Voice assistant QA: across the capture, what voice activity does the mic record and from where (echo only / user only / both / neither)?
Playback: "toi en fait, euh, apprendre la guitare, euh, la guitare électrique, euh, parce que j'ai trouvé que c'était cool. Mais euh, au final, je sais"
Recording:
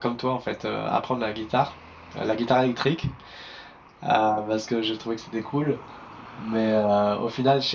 echo only